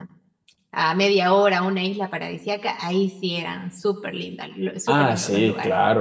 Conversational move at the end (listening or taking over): taking over